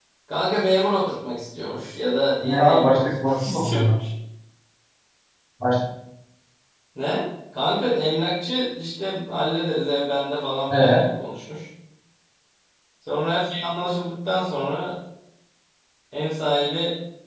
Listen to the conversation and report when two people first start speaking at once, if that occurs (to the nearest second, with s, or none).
2 s